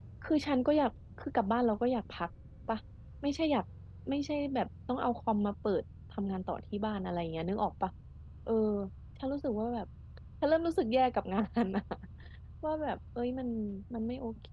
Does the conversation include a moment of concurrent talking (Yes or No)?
No